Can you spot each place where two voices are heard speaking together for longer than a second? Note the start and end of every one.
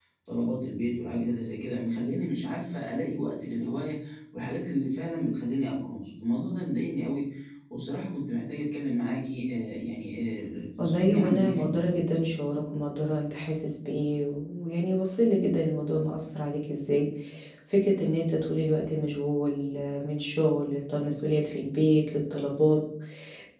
10.8-12.0

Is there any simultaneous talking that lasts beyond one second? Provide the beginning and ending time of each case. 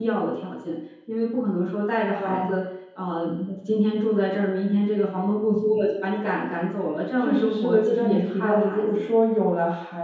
7.2-9.0

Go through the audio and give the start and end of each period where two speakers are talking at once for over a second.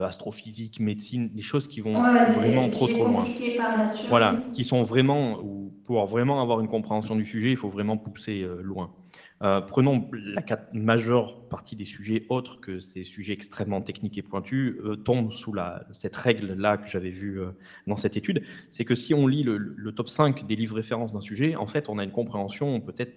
1.9-3.3

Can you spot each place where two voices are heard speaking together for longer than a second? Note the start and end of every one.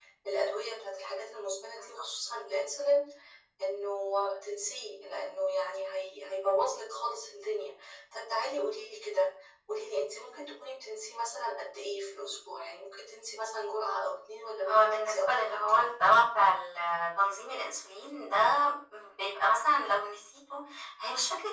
14.7-15.9

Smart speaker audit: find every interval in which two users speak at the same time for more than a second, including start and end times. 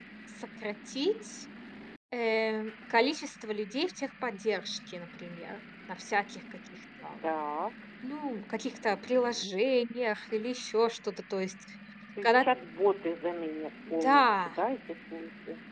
none

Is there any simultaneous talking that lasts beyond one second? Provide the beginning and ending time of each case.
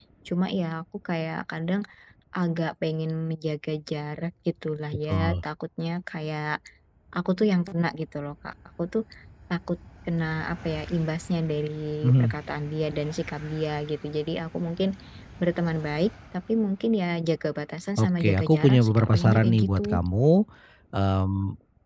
18.0-19.9

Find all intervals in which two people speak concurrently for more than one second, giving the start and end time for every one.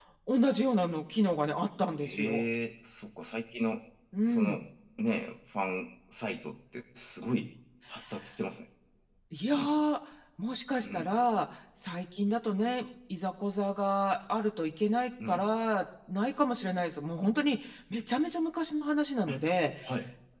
none

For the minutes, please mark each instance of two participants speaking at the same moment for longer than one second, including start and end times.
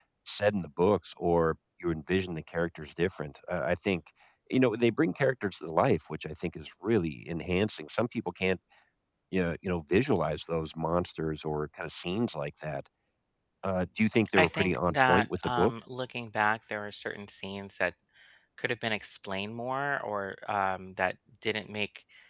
14.3-15.7

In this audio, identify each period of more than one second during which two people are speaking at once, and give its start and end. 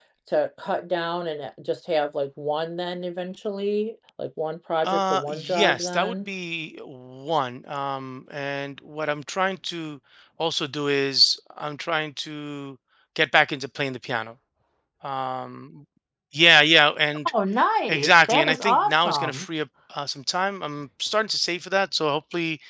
4.8-6.3, 17.9-19.4

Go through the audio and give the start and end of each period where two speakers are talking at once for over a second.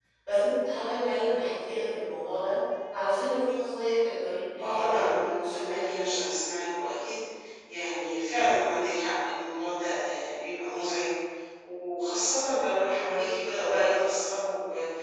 4.6-6.2

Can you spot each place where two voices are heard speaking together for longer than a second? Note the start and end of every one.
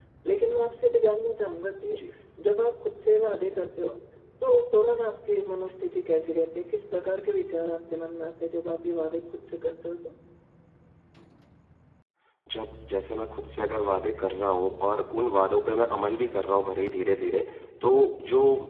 none

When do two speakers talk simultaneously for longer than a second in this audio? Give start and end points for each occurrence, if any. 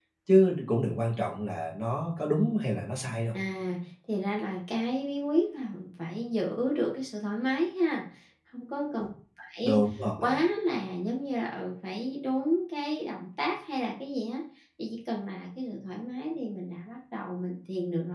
none

